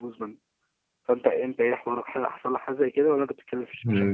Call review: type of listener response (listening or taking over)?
taking over